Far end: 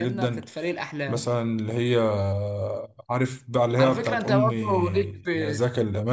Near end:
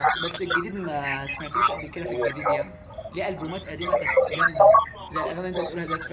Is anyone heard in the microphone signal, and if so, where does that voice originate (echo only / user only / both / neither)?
both